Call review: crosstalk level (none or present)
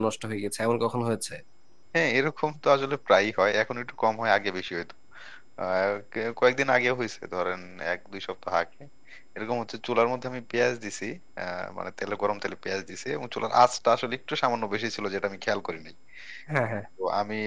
none